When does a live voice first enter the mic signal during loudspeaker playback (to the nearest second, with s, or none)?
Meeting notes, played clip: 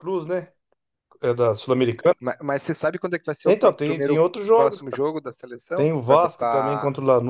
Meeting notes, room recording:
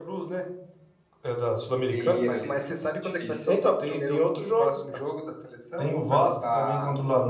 2 s